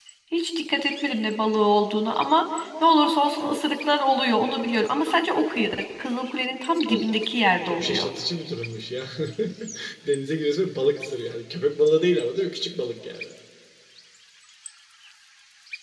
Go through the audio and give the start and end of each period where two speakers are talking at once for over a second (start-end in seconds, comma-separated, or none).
6.9-8.1